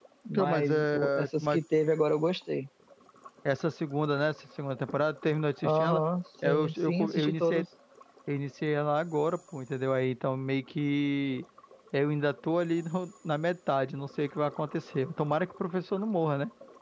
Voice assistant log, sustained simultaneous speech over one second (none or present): present